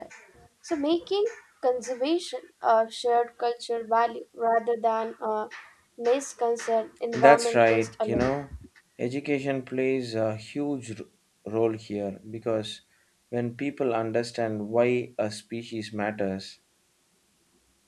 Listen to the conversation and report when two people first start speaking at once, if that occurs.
7 s

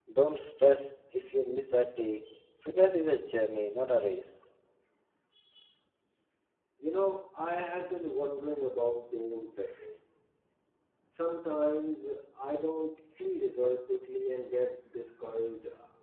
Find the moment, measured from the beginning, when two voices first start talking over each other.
none

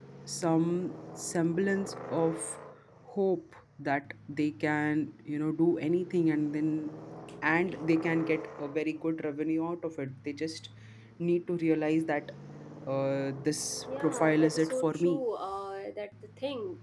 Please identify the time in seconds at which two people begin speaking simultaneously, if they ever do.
14 s

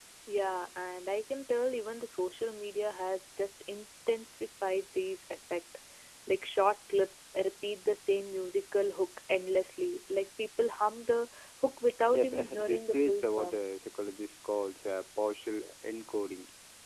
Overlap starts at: 12 s

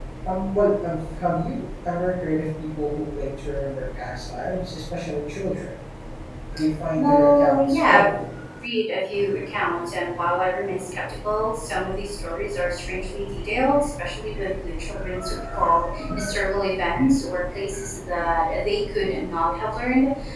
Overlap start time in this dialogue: 7 s

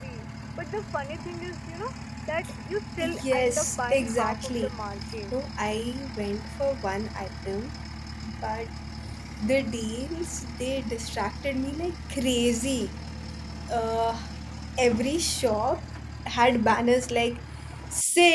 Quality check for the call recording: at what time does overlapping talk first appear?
3 s

